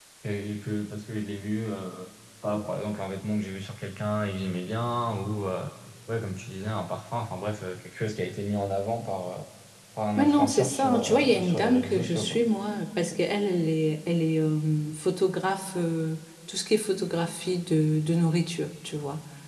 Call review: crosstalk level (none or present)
present